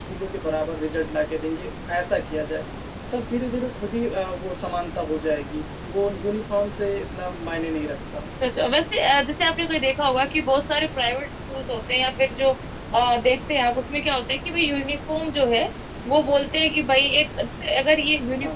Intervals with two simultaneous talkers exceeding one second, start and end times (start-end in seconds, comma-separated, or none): none